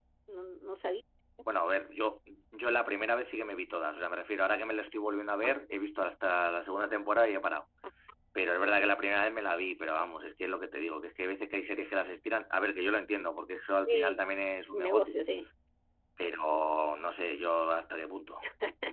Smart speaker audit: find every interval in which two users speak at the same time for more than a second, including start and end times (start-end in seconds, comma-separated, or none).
none